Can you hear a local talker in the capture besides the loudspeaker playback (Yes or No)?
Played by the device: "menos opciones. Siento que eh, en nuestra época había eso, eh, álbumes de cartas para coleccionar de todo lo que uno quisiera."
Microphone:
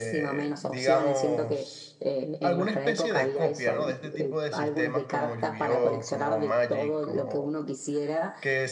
Yes